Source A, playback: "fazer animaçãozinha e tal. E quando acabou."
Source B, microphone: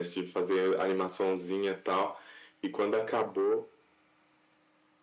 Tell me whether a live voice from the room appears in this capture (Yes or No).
No